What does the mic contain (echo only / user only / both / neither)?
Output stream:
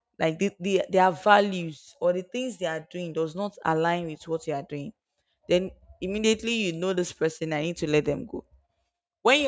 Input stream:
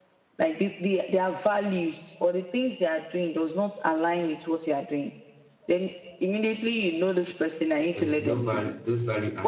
both